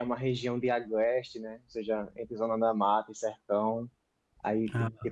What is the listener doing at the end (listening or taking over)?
listening